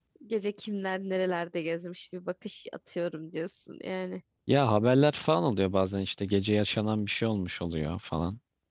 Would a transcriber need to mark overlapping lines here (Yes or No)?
No